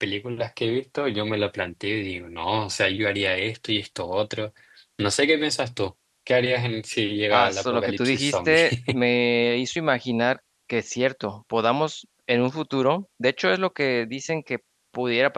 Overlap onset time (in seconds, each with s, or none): 7.3 s